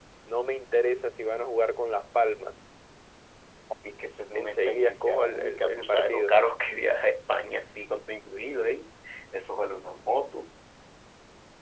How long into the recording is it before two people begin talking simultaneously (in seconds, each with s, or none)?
4.3 s